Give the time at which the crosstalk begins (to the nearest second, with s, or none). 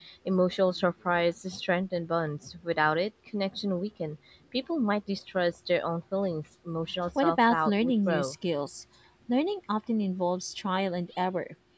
7 s